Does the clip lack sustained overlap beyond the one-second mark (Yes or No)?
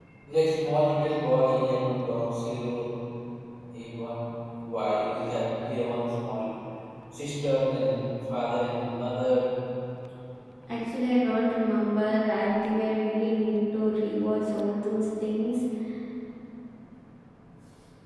Yes